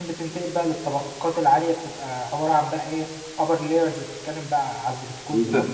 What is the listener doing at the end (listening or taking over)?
taking over